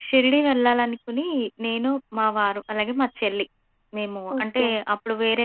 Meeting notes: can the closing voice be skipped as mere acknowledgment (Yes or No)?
Yes